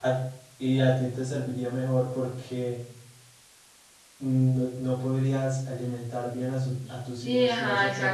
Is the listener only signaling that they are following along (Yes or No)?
No